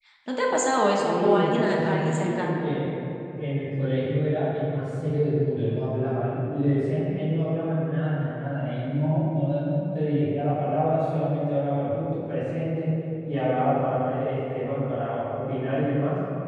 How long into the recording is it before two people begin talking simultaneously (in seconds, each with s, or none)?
1.0 s